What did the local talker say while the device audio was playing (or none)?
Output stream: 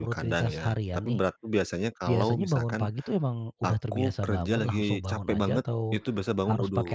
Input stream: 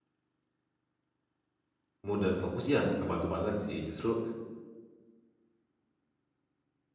Mood, dan fokus ya, b ngebantu banget sih, justru